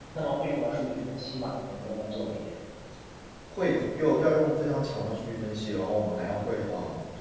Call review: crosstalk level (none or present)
none